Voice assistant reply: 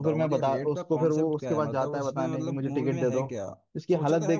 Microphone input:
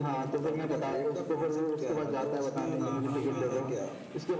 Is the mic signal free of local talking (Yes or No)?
No